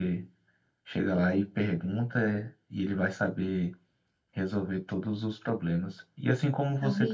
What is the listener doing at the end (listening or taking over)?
listening